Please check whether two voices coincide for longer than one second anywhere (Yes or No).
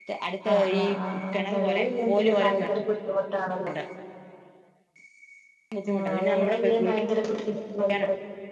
Yes